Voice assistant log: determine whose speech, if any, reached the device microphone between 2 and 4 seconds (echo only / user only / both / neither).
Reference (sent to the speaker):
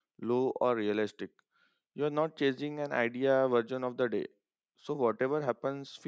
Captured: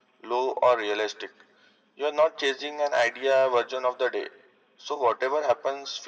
echo only